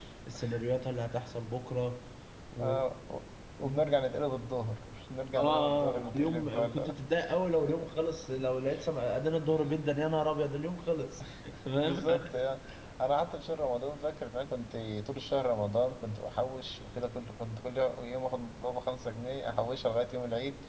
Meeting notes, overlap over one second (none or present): present